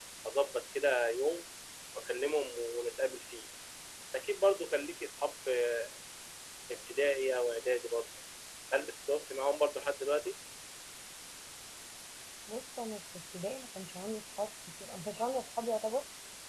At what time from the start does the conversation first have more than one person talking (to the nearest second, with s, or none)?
none